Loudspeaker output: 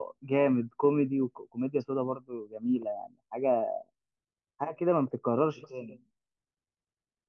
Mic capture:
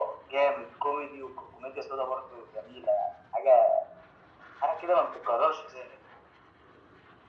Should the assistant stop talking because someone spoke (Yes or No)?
No